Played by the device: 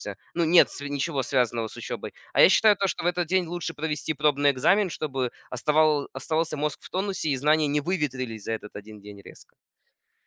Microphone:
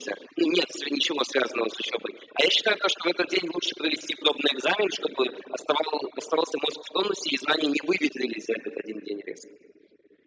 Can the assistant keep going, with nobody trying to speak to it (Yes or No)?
Yes